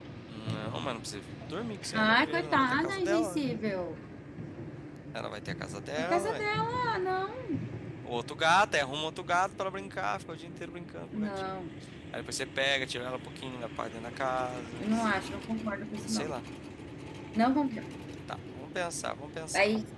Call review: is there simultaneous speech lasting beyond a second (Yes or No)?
Yes